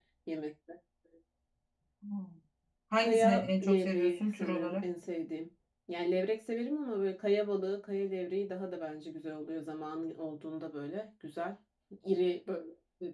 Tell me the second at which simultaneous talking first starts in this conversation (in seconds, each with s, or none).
3.0 s